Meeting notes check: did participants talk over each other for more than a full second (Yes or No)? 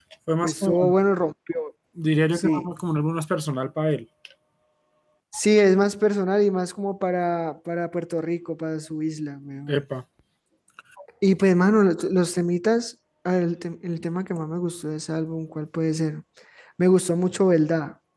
No